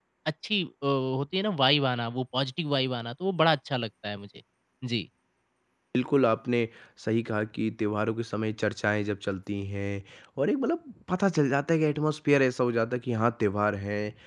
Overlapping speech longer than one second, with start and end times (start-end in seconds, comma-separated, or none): none